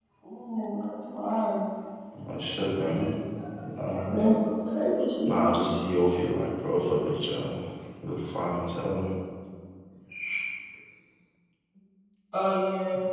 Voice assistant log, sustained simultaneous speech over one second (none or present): none